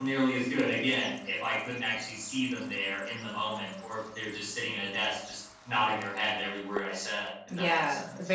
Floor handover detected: Yes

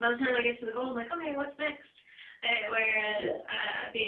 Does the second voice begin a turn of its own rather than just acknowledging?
No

